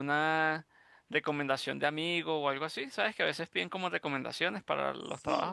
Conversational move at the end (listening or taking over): taking over